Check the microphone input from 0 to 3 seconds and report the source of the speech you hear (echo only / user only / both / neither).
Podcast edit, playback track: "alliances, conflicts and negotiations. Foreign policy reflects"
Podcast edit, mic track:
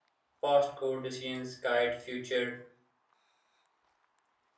user only